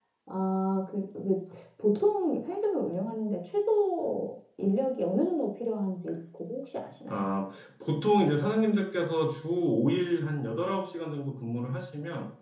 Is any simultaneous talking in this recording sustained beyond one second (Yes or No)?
No